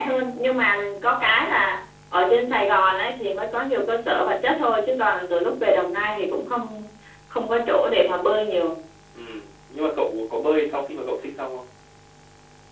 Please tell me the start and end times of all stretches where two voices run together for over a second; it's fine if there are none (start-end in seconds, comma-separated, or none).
none